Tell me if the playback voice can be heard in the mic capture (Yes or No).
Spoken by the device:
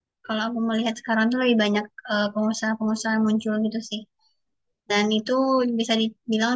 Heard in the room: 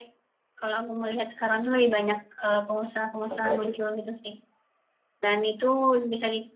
Yes